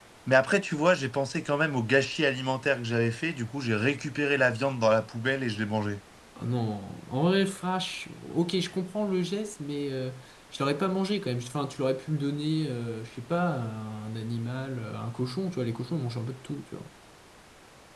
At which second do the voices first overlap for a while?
none

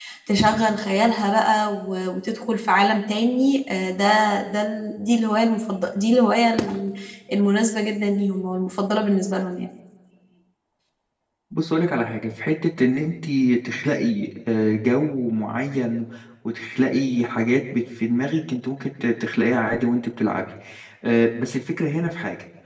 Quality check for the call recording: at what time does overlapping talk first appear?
none

